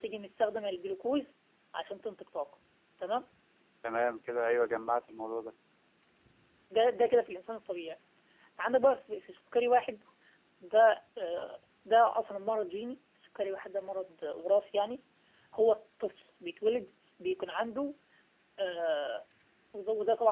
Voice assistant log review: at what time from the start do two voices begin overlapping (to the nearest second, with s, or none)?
none